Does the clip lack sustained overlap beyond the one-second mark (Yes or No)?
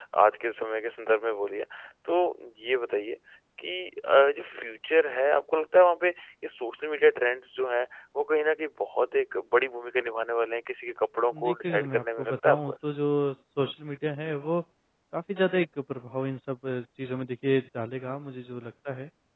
No